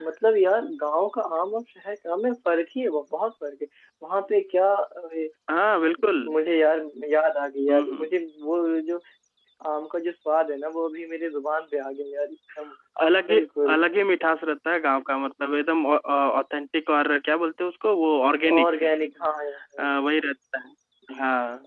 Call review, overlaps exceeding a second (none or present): none